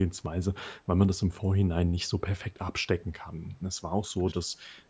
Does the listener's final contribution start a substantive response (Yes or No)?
No